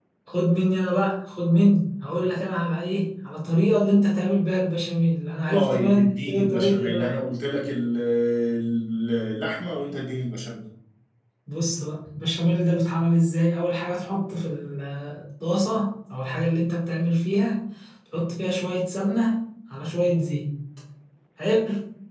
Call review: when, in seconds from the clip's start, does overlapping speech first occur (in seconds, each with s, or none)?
5.5 s